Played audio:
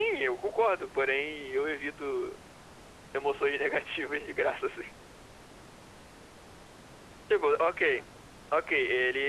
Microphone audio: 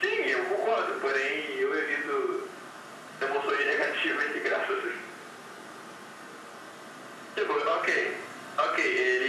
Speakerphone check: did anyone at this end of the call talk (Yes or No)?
No